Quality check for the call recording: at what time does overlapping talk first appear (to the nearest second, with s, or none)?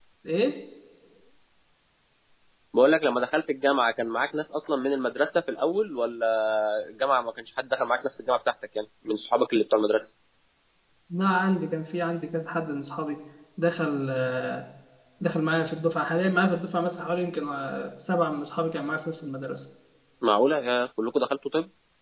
none